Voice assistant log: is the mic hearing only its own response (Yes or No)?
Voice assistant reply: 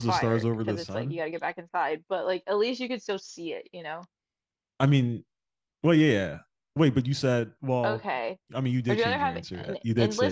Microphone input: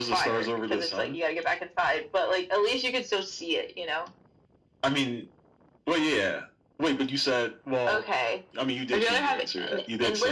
Yes